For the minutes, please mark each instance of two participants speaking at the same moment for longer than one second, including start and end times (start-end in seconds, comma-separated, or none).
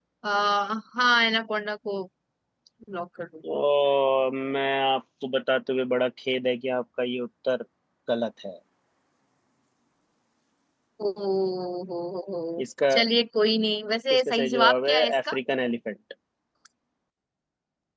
14.1-15.4